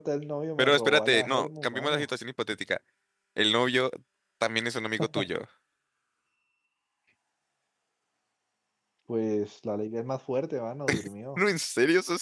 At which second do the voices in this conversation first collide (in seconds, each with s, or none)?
0.6 s